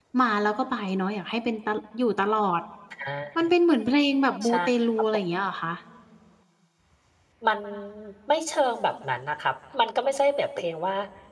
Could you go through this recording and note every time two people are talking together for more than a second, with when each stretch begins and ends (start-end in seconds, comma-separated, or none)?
none